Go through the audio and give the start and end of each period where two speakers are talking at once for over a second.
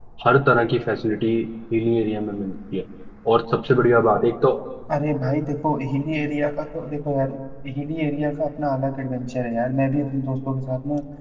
none

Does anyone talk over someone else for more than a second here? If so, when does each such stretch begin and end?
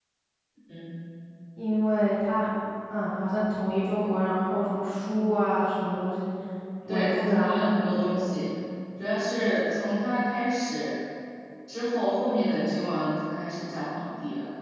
6.9-8.4

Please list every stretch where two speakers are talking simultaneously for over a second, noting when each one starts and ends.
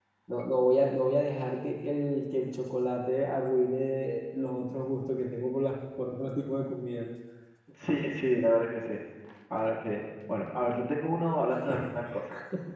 none

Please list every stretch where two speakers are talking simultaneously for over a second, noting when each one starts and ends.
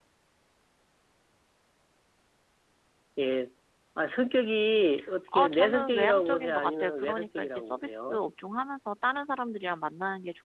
5.4-8.2

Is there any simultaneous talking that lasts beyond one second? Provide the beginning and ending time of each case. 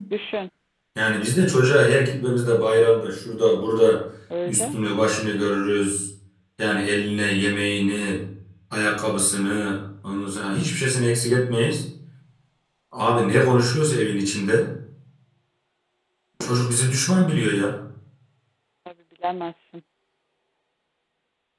none

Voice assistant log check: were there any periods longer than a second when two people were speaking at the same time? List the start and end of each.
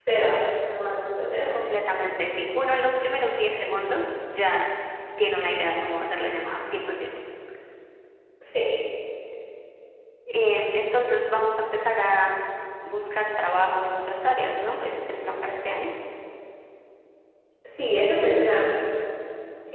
none

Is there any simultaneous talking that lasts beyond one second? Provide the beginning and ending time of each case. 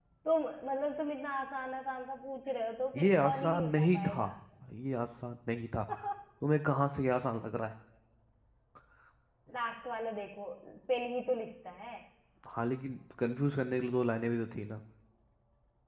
2.9-4.2

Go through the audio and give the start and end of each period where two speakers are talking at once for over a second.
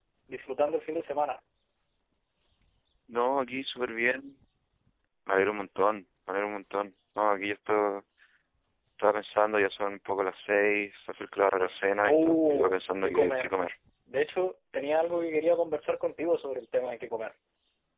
12.0-13.5

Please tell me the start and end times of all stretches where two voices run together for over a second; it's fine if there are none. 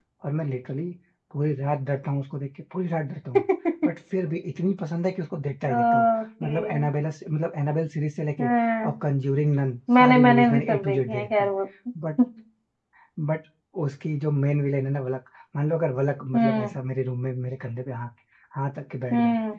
10.0-11.5

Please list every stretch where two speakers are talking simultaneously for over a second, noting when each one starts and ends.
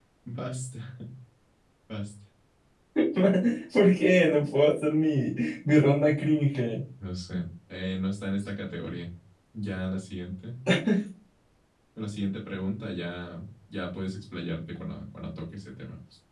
none

